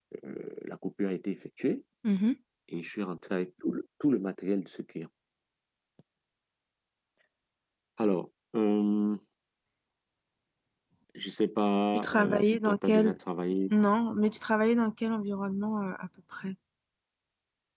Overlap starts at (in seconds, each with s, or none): 11.9 s